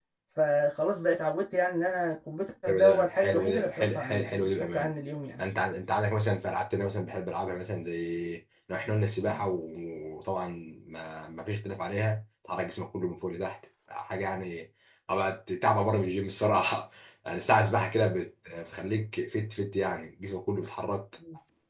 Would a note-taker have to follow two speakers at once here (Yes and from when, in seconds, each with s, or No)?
Yes, from 2.7 s